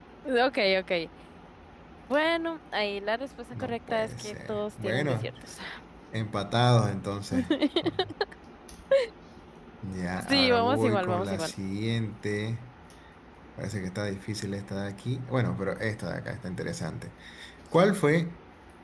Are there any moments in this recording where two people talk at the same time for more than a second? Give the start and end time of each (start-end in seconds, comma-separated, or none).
3.5-5.2, 10.3-11.5